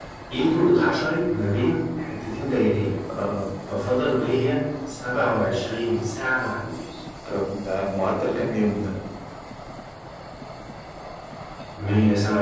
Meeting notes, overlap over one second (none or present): none